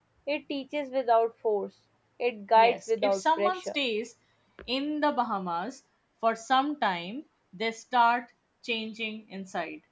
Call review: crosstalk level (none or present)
present